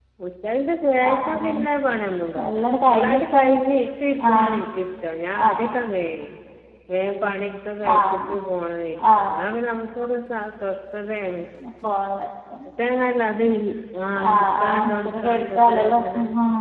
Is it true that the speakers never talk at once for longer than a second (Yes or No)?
No